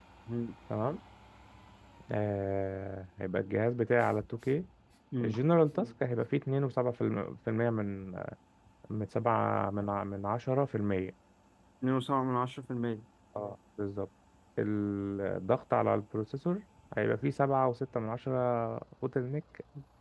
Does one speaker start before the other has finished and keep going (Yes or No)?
No